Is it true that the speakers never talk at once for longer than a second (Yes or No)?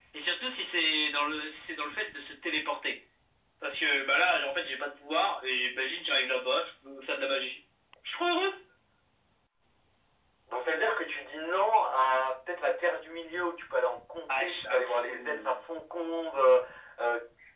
No